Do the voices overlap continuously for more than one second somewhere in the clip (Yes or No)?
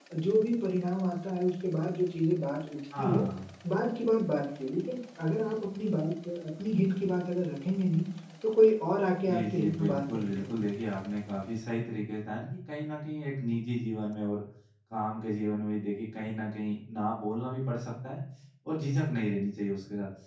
Yes